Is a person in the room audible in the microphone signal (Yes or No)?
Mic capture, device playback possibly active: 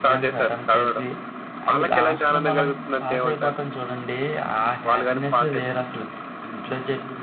Yes